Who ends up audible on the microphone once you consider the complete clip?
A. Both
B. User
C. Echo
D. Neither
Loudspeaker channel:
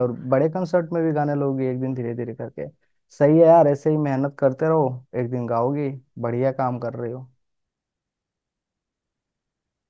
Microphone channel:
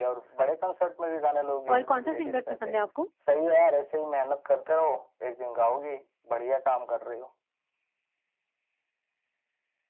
A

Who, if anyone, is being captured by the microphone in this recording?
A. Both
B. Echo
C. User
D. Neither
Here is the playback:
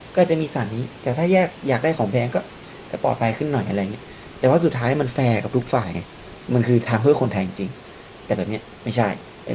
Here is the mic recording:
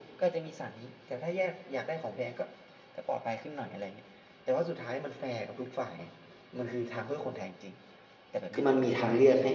A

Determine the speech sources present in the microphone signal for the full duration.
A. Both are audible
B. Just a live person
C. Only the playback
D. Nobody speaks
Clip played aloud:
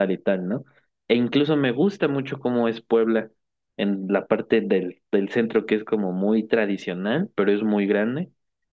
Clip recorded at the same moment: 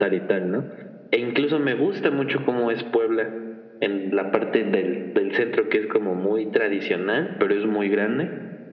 C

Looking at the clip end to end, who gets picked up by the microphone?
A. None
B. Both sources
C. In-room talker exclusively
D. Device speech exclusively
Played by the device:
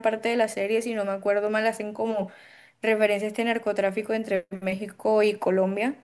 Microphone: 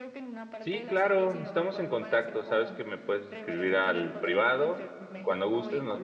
B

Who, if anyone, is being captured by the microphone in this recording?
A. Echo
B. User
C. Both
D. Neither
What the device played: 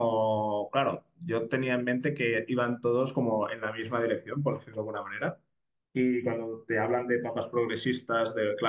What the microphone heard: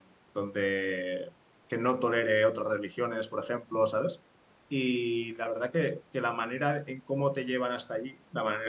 B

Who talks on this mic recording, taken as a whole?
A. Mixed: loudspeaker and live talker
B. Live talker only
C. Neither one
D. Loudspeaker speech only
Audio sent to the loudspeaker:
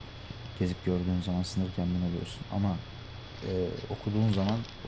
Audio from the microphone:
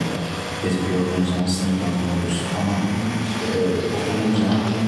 A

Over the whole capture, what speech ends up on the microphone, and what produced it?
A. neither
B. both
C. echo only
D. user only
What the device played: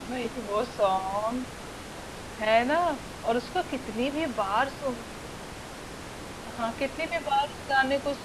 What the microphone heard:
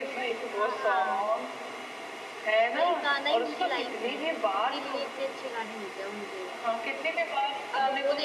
B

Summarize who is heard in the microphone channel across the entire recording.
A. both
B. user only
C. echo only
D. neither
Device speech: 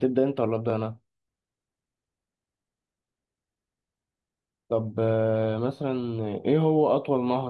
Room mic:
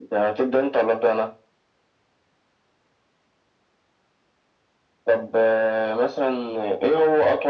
C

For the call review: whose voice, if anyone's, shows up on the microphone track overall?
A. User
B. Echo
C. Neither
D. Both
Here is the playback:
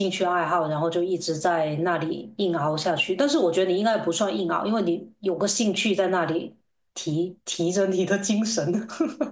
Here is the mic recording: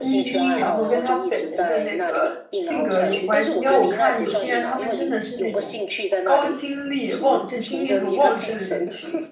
D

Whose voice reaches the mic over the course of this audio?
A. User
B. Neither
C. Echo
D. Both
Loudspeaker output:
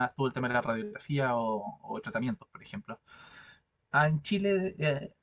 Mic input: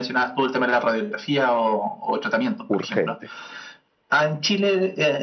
D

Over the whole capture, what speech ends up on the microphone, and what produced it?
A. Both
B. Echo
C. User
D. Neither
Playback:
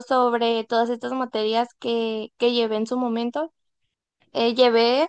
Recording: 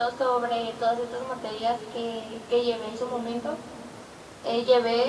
B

